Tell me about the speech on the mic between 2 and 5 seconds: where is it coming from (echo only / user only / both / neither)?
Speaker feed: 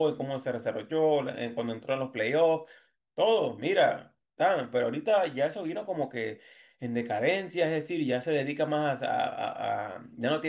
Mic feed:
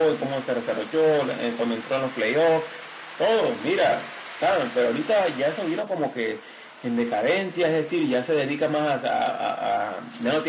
echo only